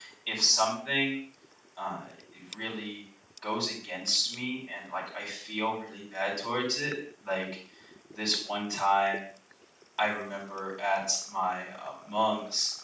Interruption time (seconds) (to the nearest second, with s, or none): none